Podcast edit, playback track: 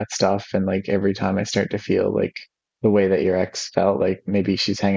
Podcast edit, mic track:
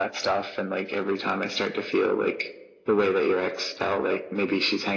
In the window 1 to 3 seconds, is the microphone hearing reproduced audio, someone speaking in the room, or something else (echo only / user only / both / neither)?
echo only